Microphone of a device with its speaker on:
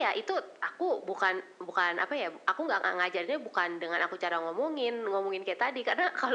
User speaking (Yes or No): No